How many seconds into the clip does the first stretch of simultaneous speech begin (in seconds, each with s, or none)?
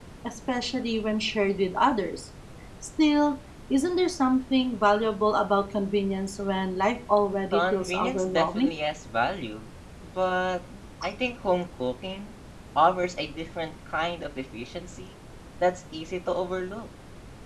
7.5 s